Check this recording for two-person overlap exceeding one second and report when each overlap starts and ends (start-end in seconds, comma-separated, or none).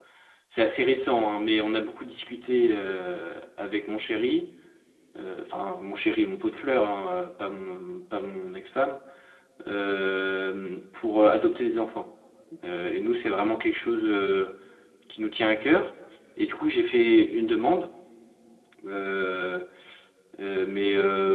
none